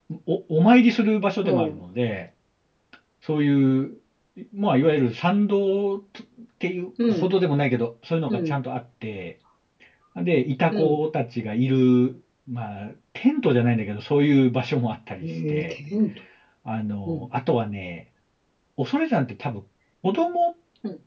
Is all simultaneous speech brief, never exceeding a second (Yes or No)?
Yes